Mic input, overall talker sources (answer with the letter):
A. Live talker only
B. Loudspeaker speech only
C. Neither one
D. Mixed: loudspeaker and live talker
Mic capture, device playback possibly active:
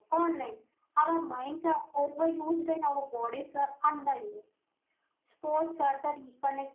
B